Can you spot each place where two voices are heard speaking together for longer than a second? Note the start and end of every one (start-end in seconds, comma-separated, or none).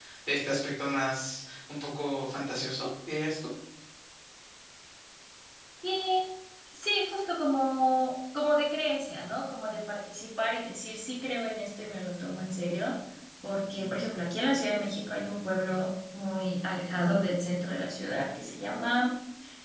none